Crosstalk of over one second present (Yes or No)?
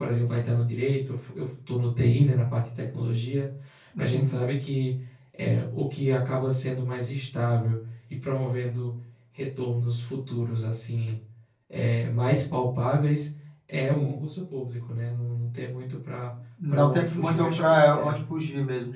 Yes